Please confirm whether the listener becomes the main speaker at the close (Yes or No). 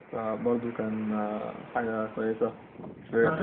Yes